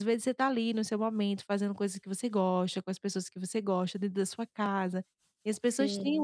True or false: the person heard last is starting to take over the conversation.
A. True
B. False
B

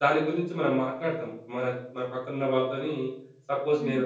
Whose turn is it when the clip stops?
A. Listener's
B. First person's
B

